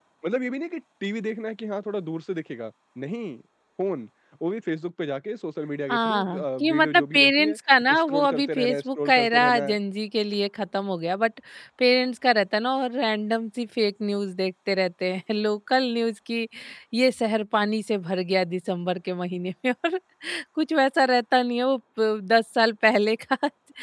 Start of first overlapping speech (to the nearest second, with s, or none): 6 s